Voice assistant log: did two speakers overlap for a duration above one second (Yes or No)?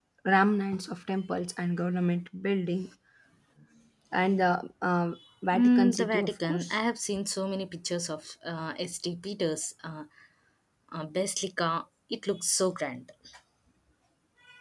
Yes